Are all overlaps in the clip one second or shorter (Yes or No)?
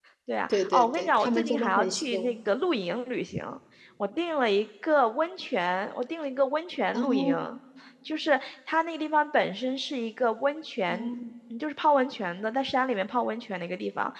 No